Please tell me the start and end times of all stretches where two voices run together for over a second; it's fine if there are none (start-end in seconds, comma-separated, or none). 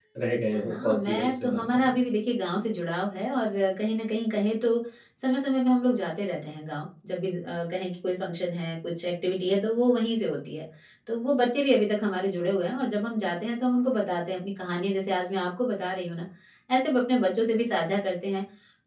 0.5-2.0